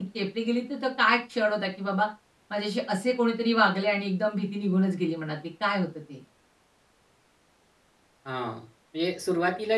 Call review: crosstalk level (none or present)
none